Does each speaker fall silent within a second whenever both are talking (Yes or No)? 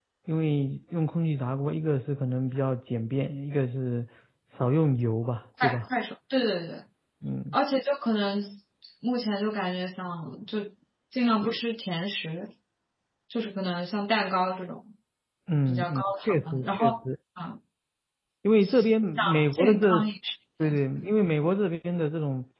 No